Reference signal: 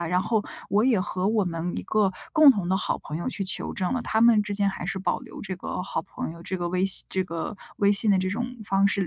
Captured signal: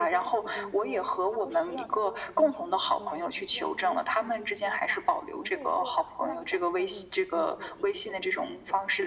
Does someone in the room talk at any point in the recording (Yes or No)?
Yes